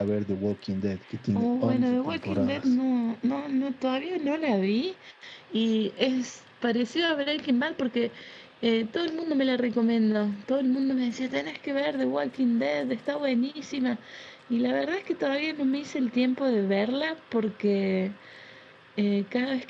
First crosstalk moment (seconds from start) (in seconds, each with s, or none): 1.4 s